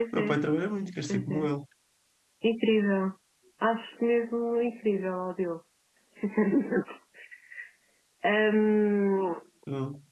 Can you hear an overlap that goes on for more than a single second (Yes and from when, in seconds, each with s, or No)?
No